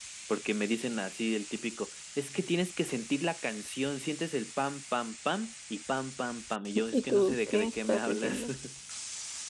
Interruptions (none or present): present